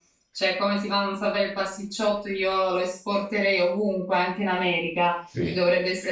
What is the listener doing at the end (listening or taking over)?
listening